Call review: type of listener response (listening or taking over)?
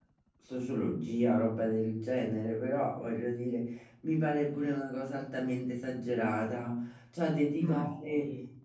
listening